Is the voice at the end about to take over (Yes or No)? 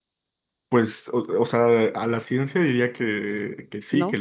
No